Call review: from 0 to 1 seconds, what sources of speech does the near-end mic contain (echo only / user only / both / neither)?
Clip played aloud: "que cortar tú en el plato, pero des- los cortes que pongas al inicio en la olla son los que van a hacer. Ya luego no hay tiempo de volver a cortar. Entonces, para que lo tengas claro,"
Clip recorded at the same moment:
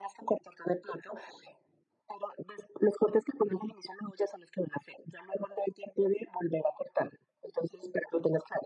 echo only